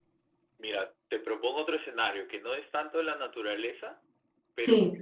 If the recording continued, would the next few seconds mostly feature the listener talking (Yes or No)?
No